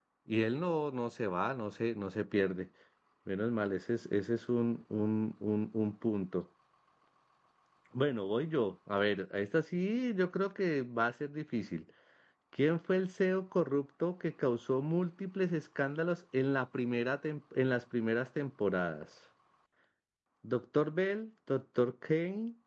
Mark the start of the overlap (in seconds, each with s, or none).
none